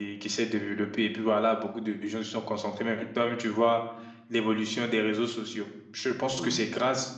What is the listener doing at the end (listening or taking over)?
listening